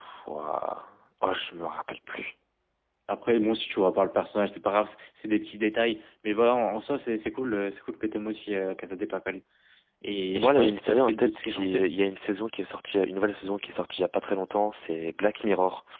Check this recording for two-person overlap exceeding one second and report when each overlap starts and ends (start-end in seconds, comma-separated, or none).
10.4-11.9